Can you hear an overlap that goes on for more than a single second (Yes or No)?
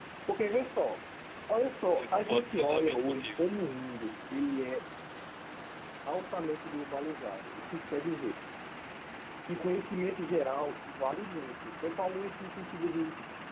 Yes